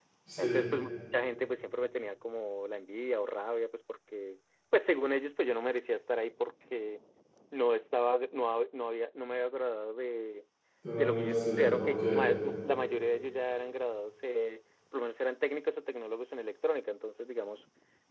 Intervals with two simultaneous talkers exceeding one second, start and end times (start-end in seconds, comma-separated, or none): 11.0-12.3